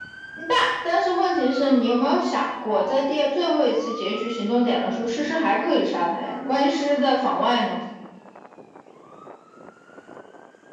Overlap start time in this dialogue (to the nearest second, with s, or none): none